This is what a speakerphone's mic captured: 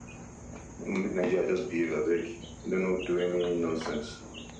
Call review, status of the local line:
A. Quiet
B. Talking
A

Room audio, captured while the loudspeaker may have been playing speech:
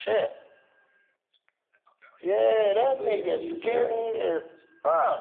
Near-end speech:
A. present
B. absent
A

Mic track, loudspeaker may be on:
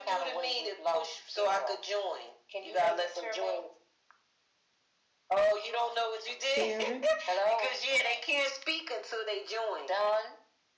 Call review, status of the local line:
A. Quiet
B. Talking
B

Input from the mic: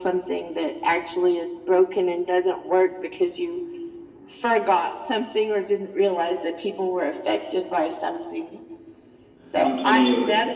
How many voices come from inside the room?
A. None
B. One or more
B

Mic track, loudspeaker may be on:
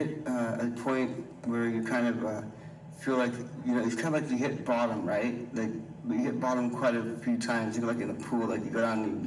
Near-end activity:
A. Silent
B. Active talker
A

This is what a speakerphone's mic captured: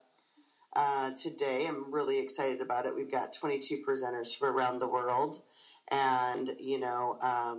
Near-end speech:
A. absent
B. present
A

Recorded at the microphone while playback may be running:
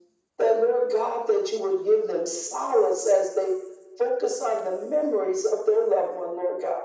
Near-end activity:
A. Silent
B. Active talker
A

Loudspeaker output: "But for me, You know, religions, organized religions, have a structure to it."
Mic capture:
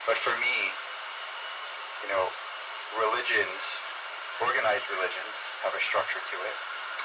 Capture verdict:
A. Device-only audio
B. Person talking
A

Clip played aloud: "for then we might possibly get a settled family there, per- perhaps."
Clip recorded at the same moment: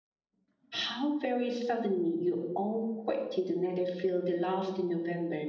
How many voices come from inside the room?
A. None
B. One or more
B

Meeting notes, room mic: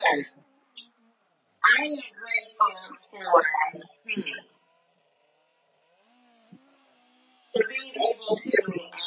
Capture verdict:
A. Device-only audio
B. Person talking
A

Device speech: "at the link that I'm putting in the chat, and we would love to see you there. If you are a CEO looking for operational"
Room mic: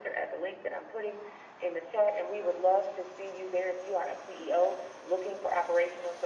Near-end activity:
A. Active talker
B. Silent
B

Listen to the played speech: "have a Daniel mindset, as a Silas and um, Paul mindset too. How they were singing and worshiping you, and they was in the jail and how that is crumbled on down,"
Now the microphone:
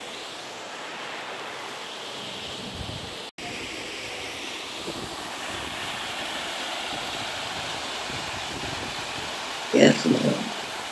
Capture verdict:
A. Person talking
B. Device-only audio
A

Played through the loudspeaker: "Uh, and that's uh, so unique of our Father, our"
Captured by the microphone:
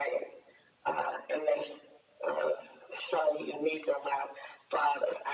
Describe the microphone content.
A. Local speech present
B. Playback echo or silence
B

